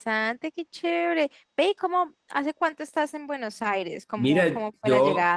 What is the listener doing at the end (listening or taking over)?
taking over